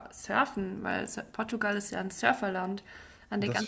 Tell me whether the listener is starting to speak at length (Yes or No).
No